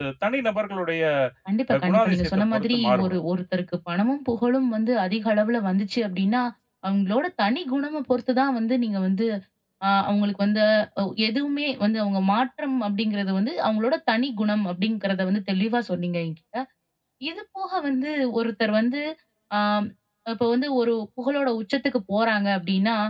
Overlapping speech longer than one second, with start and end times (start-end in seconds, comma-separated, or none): 1.7-3.2